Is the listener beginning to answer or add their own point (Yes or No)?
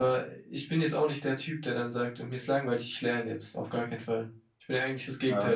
Yes